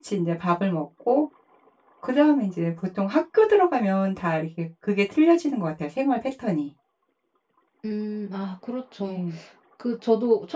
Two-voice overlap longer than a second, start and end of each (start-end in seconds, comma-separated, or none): none